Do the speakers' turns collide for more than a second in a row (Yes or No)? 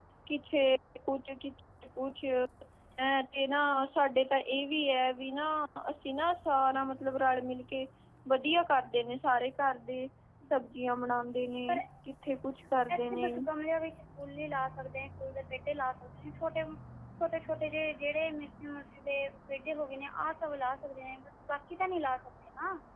No